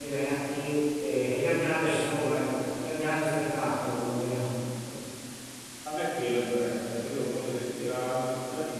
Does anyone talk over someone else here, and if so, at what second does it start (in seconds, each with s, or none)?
none